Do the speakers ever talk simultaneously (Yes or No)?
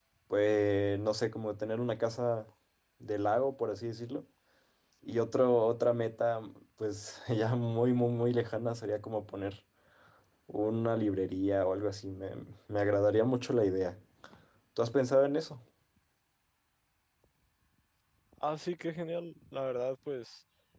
No